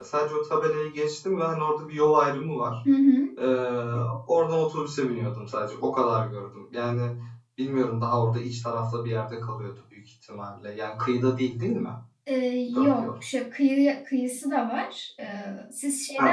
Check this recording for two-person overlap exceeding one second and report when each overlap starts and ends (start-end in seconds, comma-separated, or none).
none